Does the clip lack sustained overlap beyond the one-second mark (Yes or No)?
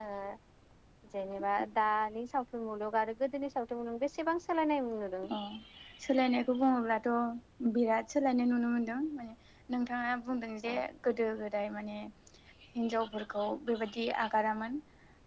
Yes